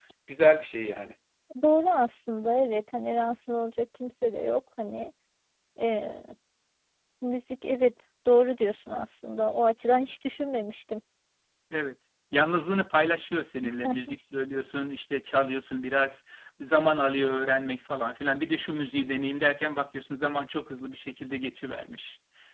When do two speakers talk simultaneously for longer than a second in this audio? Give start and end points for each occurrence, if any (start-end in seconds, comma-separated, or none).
none